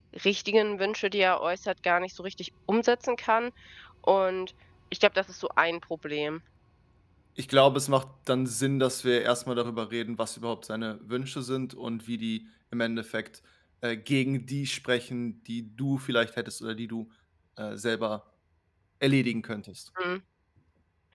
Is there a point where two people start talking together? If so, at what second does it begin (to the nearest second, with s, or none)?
none